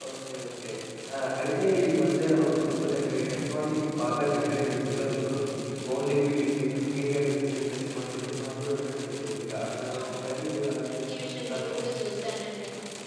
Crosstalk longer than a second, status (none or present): none